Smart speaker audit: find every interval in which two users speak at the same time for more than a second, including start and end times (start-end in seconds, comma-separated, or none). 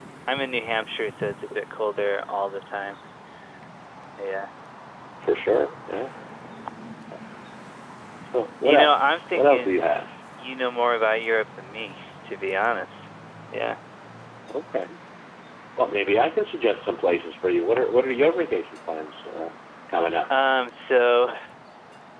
8.6-9.8